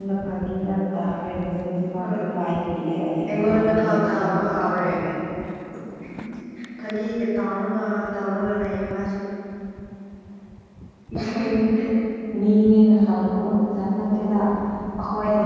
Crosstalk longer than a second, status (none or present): present